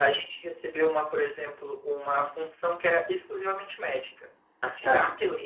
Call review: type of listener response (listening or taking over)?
listening